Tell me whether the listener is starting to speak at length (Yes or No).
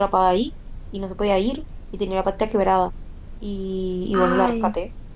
No